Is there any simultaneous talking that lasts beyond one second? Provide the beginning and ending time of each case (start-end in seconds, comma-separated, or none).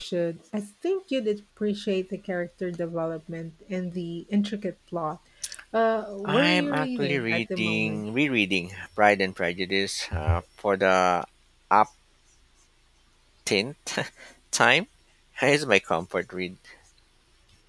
6.2-8.0